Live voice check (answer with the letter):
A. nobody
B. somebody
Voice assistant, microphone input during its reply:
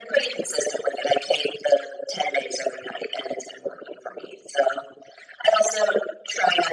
A